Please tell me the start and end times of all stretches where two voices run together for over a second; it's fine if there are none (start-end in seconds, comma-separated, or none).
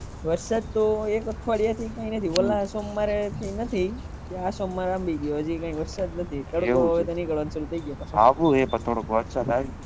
none